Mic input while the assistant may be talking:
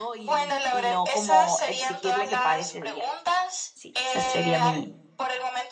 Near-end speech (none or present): present